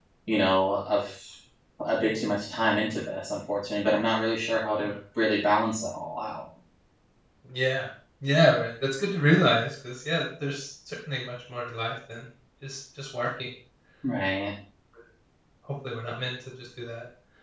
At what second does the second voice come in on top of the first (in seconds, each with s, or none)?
none